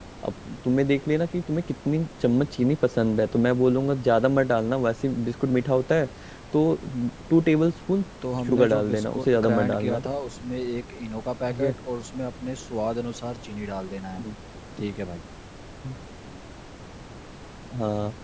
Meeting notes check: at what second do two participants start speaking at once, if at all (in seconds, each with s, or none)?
8.5 s